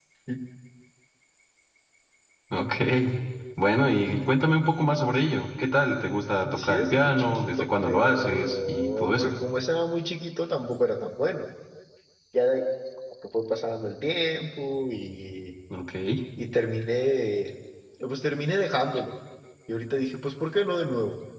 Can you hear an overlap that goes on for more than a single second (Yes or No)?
Yes